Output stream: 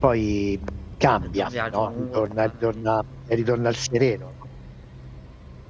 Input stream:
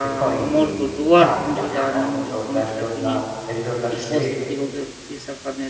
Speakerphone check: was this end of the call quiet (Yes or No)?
No